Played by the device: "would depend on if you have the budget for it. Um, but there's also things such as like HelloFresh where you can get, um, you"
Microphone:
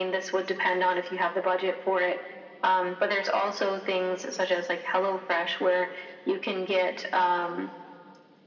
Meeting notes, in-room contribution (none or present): none